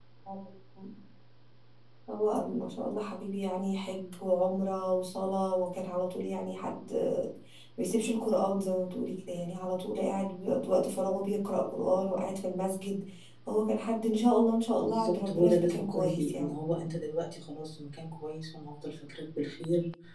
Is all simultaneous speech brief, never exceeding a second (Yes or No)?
No